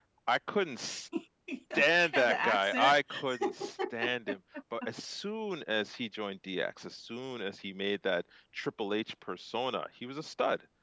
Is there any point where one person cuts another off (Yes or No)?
Yes